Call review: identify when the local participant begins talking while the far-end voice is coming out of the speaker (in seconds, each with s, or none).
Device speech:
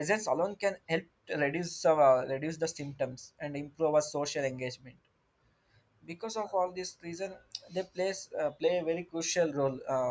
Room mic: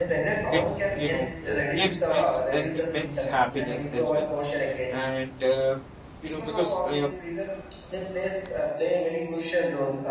0.5 s